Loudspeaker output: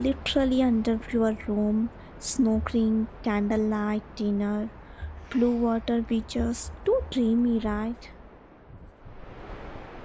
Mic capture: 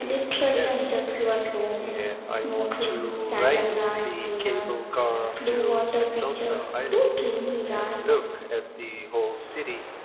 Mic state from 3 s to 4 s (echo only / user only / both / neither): both